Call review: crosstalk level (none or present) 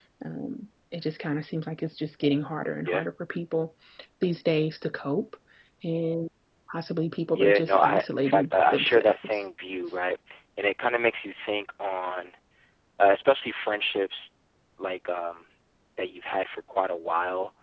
present